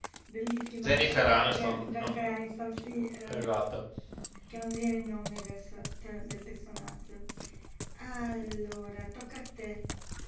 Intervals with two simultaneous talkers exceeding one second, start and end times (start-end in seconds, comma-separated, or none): 0.8-2.3